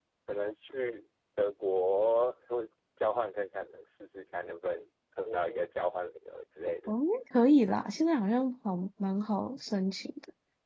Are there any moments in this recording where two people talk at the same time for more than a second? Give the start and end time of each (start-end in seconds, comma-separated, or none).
none